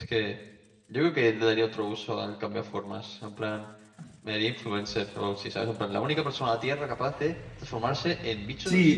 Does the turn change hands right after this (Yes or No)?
Yes